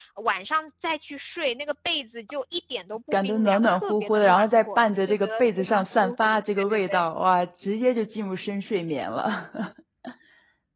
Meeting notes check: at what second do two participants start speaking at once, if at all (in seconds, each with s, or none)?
3.1 s